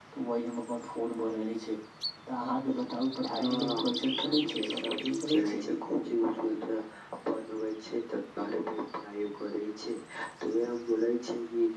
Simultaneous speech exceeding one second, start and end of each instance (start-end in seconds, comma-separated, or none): 4.2-5.6